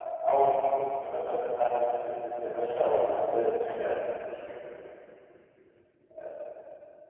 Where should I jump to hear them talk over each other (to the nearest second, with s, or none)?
none